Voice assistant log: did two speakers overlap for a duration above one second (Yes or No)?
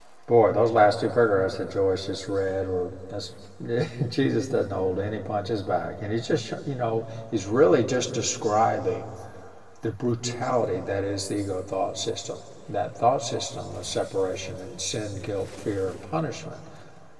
No